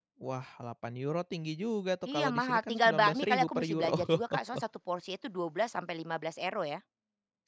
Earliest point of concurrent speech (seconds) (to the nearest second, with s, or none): 2 s